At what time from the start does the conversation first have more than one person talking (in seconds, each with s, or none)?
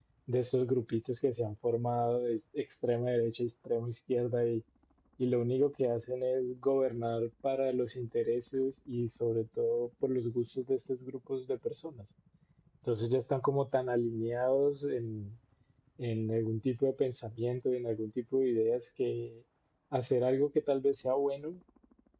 none